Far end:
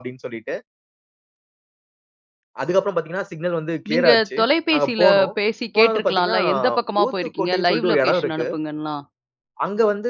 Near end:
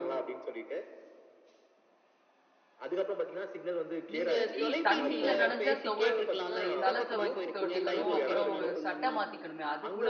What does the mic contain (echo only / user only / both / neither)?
both